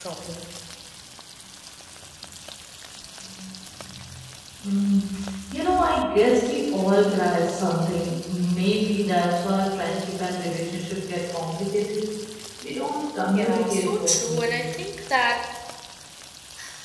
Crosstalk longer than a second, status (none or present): present